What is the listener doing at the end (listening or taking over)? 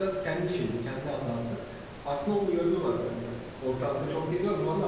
listening